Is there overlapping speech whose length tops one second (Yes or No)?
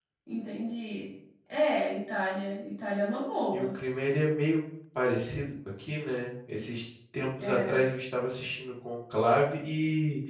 No